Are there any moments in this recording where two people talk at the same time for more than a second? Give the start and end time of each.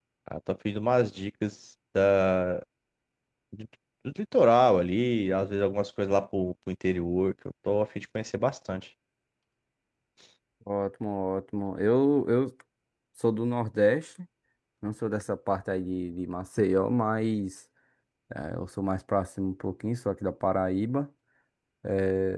none

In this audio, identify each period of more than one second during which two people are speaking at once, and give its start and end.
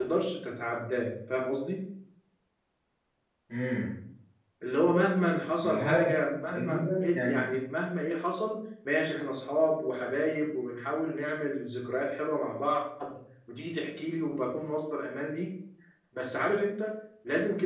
5.6-7.5

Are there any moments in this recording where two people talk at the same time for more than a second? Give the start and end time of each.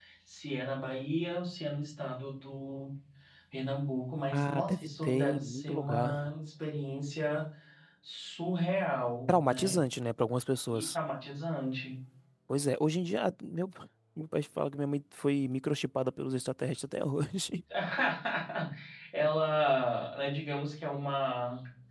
4.3-6.3

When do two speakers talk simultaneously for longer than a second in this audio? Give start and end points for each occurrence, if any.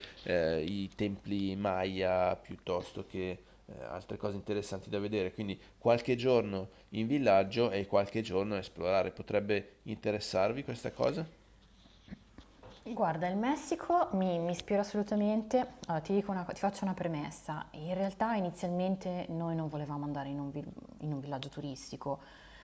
none

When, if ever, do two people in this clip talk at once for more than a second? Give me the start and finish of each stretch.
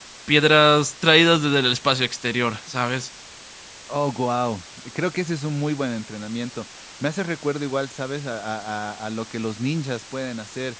none

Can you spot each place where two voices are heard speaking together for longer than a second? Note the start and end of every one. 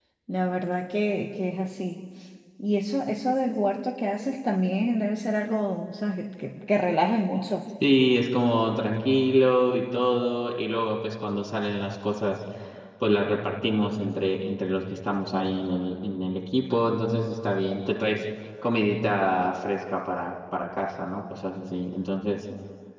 none

